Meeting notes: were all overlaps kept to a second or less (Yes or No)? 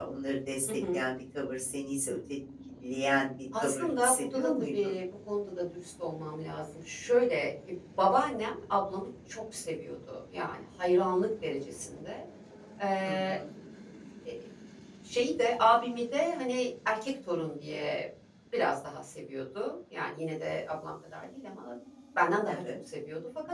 No